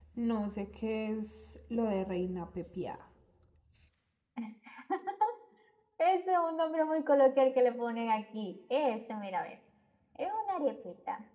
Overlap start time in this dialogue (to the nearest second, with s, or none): none